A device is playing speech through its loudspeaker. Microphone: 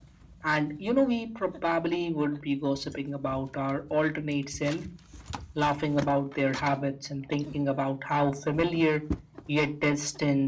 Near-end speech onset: none

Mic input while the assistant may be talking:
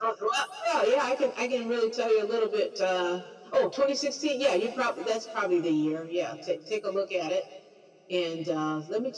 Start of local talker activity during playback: none

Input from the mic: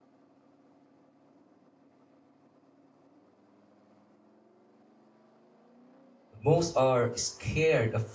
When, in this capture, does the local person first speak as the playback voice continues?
6.4 s

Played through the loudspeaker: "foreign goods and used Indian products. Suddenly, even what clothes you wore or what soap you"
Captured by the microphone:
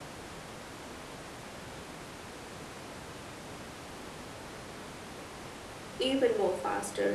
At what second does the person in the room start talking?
6.0 s

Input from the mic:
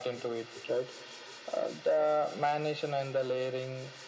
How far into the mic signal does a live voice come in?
none

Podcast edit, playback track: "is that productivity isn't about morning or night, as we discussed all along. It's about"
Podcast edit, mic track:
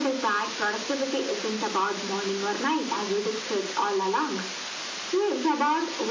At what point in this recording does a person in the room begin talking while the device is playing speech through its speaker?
none

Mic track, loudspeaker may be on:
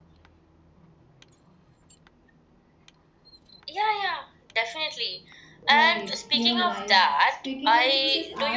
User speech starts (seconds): 5.7 s

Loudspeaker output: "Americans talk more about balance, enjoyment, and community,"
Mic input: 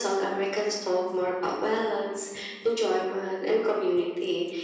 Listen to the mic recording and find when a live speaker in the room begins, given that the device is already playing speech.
none

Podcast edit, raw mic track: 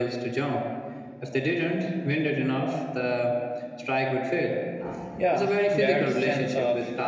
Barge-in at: 5.2 s

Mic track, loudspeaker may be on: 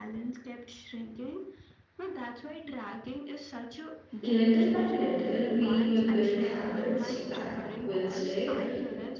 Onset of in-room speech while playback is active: 4.2 s

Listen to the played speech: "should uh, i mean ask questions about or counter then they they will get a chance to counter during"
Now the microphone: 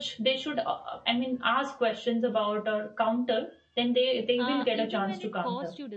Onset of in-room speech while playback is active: 4.4 s

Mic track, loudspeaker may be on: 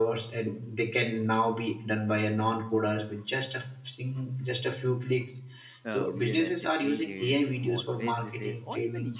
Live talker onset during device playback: 5.8 s

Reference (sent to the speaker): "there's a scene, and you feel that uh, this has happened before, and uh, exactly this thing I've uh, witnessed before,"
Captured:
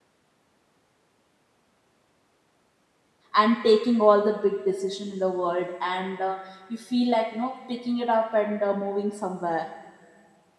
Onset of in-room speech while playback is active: 3.4 s

